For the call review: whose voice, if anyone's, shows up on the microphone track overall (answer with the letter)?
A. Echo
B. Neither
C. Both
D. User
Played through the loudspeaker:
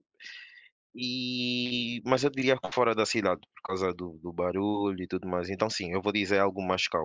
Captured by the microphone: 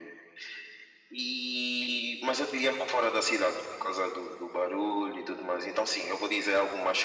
A